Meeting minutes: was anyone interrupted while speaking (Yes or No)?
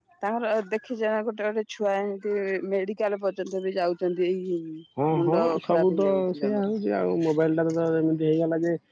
Yes